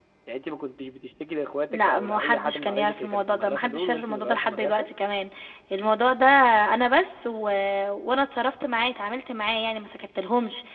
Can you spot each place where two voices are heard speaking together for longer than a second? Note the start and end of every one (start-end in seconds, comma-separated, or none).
1.7-4.9